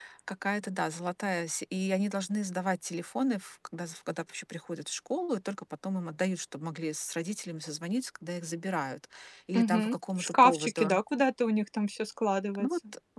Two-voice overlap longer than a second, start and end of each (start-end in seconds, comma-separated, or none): 9.6-10.9